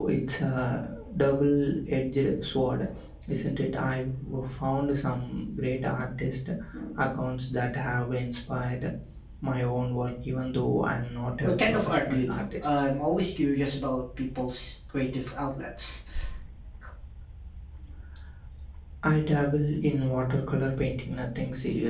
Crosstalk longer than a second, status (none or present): present